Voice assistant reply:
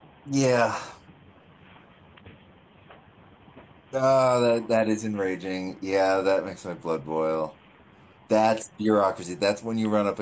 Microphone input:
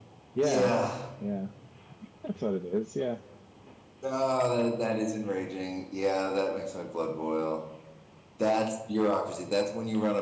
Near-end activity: present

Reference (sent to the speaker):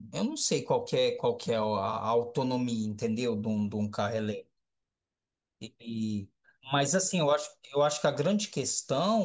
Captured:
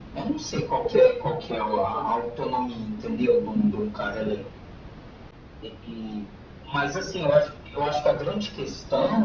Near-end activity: none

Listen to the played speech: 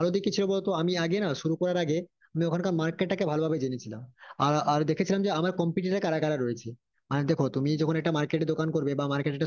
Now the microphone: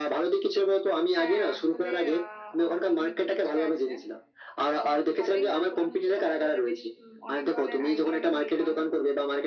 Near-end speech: present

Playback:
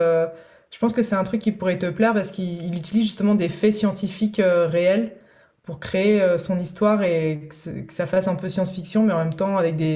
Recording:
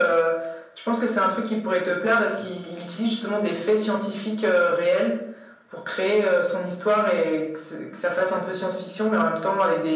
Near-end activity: none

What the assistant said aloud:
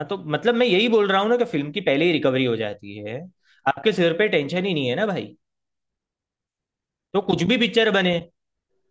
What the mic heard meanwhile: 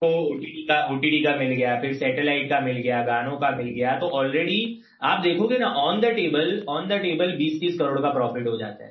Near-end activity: present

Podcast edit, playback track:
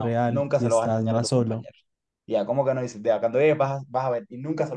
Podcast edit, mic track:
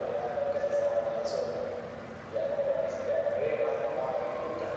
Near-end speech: none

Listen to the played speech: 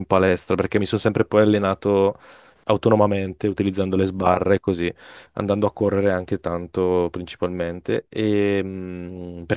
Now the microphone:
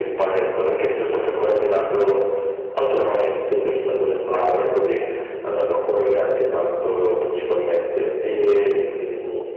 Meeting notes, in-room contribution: none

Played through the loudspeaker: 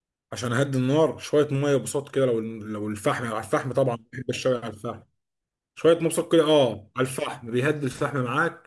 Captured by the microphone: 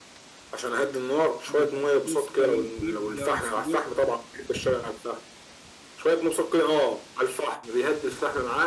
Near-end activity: present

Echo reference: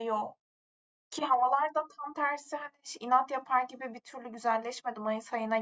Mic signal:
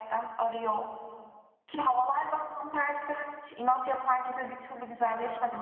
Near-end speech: none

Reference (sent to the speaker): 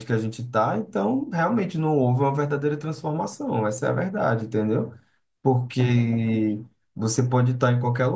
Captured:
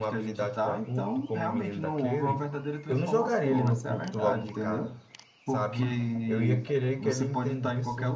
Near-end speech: present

